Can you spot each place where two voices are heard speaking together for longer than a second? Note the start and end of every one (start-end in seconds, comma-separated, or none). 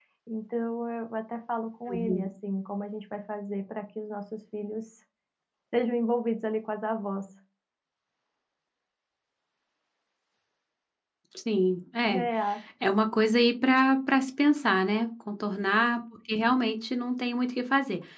none